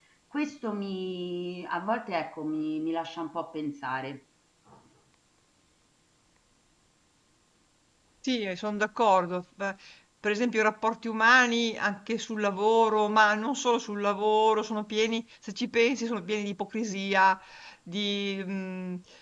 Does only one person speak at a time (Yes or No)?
Yes